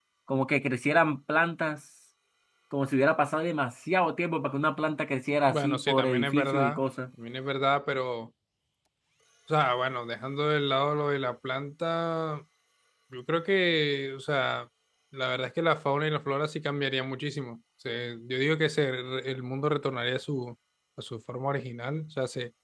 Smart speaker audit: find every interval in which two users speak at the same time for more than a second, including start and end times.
5.5-6.8

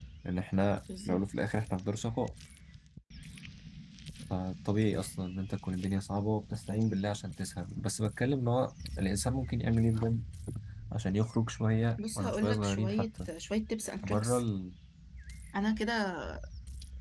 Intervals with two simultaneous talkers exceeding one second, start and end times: 12.0-13.3

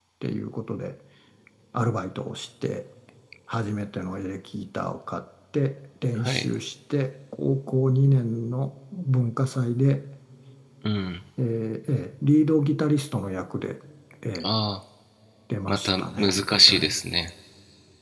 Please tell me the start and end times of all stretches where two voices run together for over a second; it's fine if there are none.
15.7-16.9

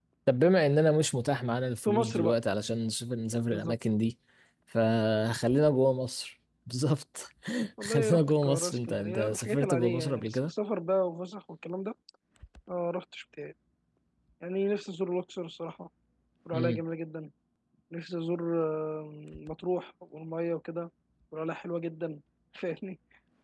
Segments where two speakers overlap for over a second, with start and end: 7.8-10.5

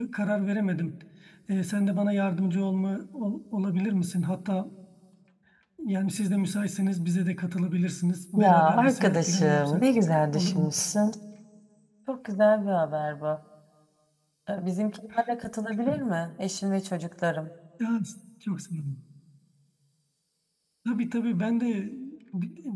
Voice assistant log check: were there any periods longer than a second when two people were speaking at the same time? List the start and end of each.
8.3-9.9

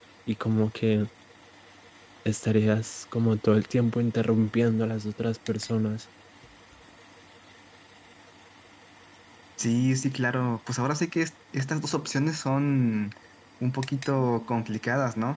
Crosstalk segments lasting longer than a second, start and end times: none

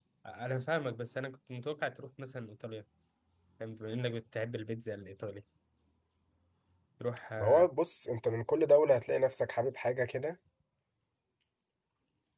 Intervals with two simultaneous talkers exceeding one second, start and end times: none

